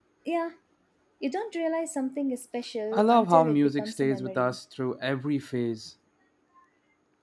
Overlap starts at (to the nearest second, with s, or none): 3 s